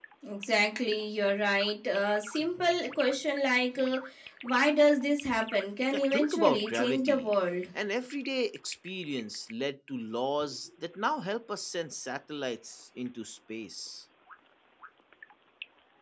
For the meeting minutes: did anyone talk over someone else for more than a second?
Yes, from 5.9 s

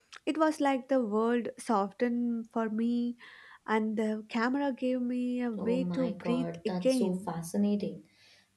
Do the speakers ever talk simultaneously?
Yes, from 5.6 s

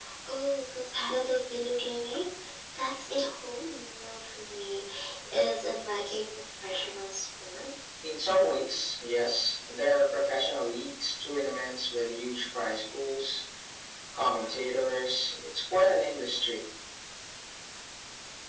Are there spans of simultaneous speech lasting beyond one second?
No

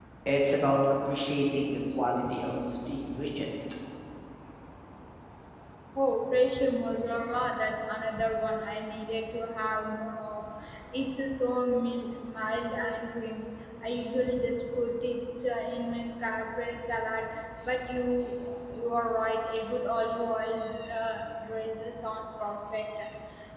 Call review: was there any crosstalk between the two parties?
No

